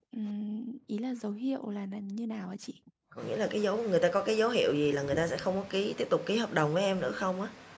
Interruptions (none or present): none